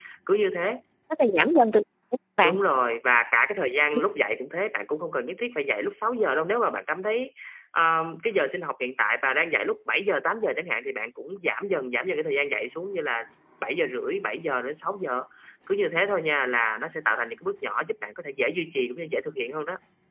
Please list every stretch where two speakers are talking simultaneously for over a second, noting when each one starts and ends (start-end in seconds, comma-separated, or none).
none